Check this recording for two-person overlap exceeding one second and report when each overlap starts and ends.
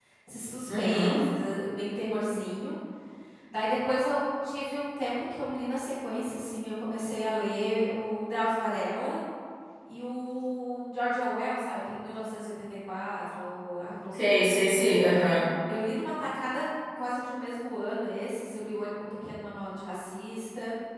none

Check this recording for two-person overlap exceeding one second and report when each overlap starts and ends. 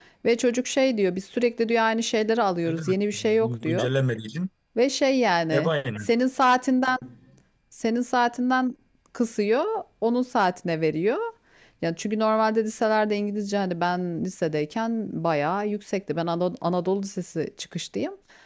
2.6-3.9

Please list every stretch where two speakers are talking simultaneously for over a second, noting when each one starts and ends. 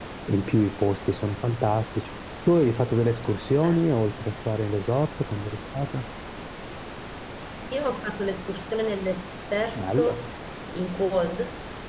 none

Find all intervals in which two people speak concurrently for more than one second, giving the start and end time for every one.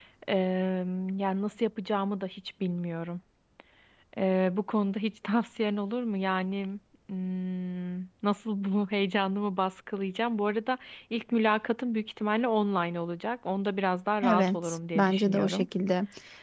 14.3-15.7

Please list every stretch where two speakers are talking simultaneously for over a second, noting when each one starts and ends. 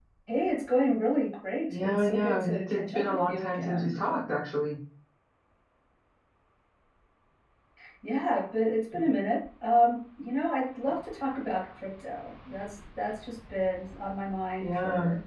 1.7-3.9

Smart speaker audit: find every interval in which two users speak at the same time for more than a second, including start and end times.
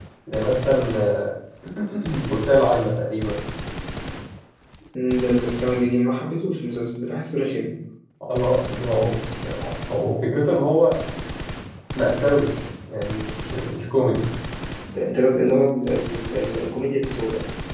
none

